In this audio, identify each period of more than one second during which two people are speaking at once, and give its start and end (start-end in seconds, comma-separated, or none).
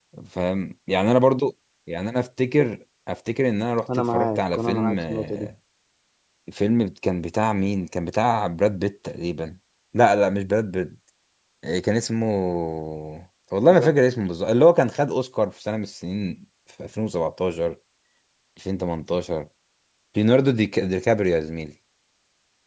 4.0-5.5